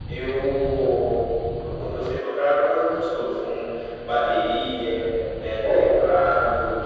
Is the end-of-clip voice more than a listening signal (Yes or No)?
No